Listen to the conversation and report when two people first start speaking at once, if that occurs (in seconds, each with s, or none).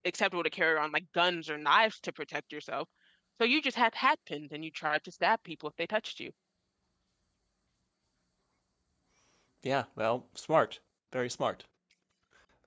none